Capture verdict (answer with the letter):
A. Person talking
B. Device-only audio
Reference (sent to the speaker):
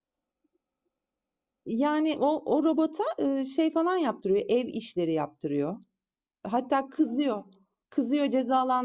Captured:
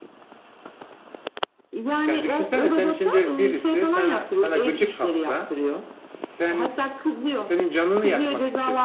A